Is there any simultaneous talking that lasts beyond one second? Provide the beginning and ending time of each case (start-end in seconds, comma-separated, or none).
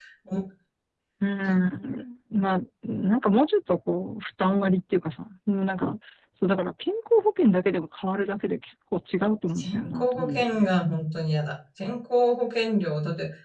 9.6-10.8